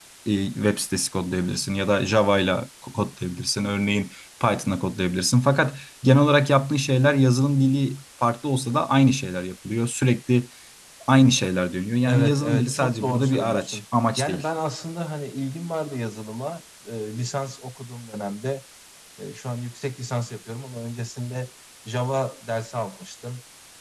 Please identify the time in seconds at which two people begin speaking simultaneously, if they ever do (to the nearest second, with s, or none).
12 s